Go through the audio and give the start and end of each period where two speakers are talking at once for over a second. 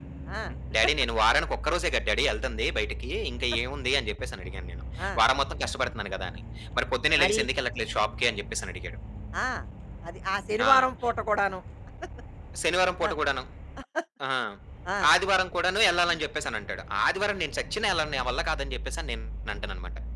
none

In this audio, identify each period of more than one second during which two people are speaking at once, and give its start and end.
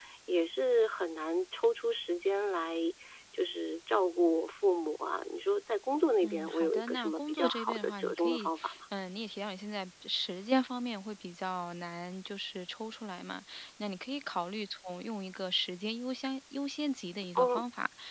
6.2-8.5

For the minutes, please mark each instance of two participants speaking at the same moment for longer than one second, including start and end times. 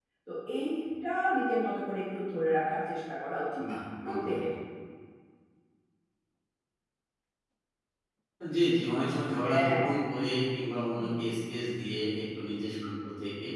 none

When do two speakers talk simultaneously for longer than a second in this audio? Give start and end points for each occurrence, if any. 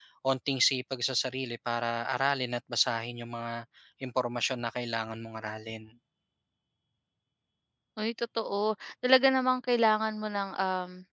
none

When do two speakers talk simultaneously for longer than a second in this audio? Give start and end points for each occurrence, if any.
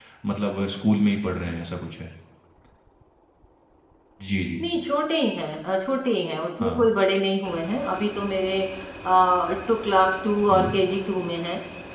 none

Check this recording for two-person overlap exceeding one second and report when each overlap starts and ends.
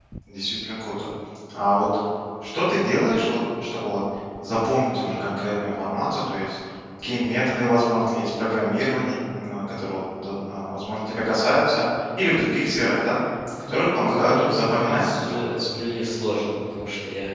13.6-15.7

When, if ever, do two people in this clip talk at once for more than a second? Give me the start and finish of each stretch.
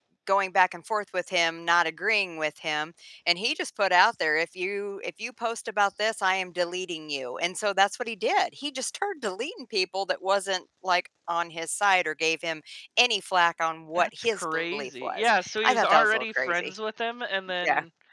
13.9-16.8

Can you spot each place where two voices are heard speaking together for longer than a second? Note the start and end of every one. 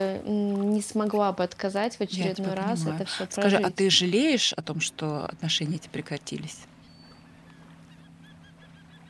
2.1-3.8

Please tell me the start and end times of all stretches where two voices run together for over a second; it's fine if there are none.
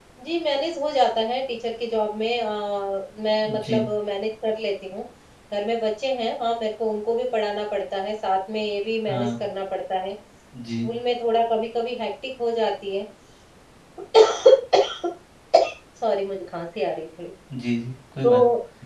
none

